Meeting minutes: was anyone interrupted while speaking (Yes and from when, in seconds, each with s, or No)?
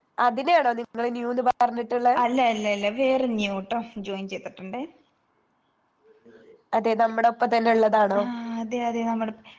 No